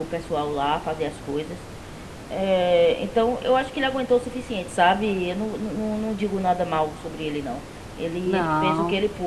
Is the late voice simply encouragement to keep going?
Yes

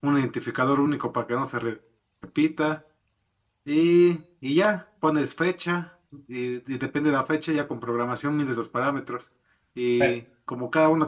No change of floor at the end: Yes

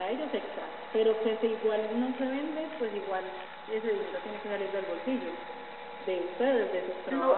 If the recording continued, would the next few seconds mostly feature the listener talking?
Yes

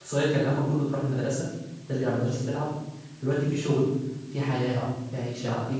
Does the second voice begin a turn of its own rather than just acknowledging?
No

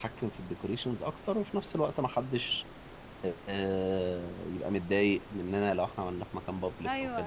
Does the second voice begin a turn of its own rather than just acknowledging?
Yes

